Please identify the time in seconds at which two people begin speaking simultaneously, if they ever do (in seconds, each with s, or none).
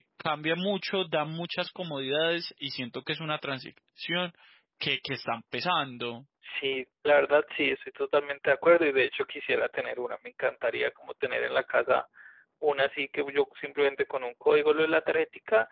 none